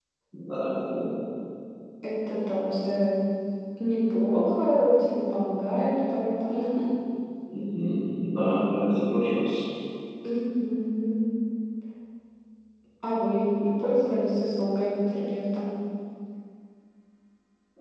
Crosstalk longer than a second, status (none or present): none